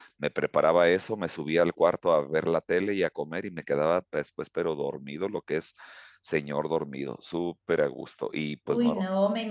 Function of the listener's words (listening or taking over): taking over